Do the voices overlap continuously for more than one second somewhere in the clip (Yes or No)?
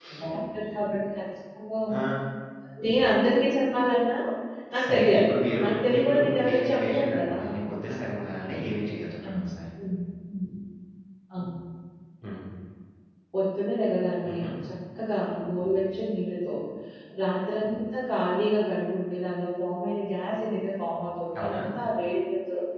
Yes